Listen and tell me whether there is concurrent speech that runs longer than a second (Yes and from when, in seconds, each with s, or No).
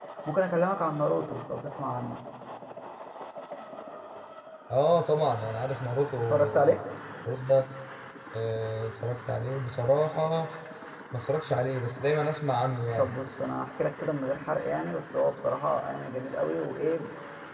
No